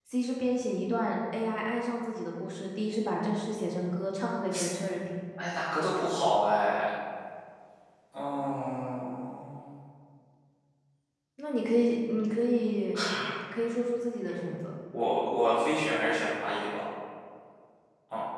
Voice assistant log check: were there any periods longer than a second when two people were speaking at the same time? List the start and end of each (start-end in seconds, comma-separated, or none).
none